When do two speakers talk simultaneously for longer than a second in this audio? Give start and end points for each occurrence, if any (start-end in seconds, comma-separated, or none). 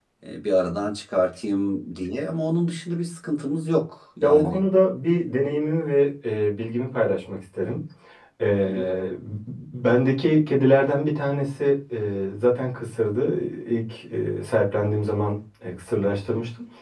none